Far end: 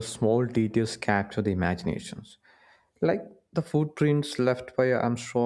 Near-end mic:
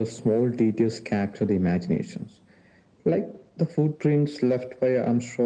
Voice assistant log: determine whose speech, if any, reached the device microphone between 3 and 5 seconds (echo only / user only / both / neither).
echo only